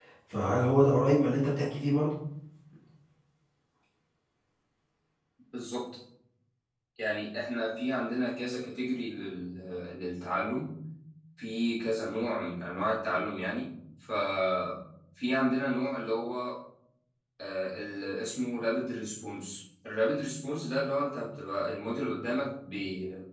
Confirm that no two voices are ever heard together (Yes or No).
Yes